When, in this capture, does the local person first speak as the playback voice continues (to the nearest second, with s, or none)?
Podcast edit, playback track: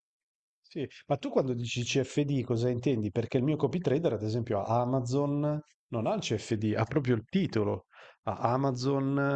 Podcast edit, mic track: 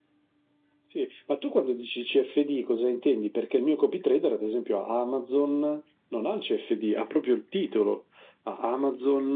none